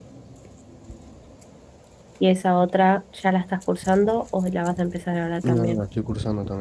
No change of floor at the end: No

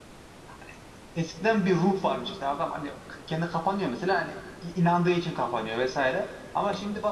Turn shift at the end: No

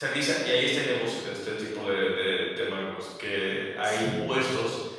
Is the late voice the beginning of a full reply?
No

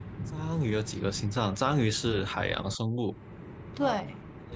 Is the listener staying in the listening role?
Yes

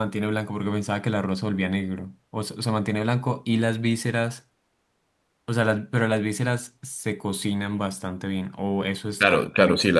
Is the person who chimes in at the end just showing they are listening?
No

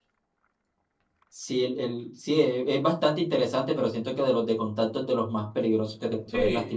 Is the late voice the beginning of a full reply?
Yes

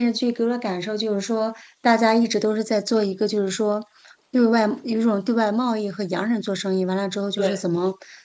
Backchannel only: Yes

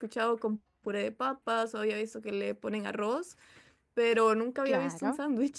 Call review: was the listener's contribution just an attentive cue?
No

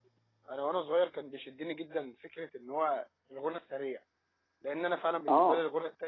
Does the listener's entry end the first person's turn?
No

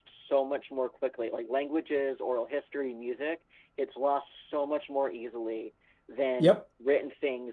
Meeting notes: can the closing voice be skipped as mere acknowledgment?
Yes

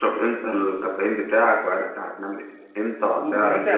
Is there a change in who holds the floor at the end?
Yes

